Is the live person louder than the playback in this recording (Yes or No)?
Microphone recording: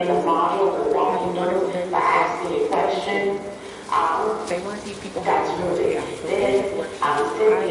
No